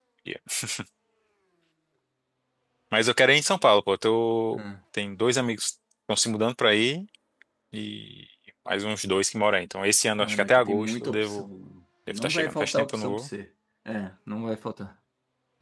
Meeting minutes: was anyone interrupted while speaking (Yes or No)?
Yes